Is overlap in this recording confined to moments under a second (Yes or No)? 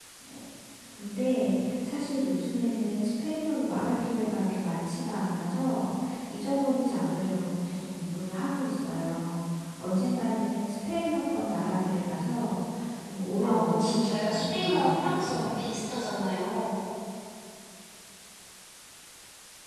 No